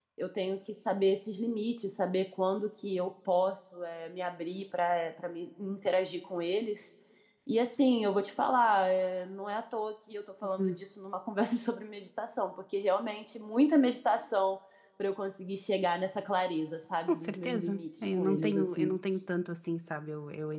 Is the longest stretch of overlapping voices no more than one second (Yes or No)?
No